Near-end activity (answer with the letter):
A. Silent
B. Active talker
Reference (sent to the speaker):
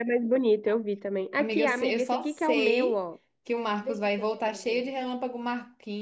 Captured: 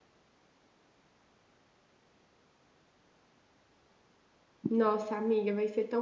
B